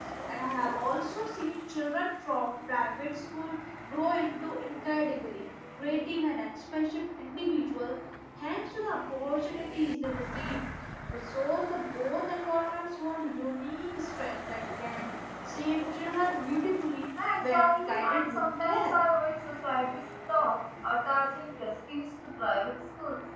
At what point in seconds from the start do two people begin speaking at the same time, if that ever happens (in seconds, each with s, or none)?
17.2 s